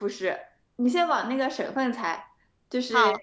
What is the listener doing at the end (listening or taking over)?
listening